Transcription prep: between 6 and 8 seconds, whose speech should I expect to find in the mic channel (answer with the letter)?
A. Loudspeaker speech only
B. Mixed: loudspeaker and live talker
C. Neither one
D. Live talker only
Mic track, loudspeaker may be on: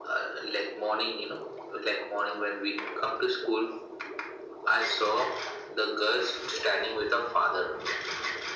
A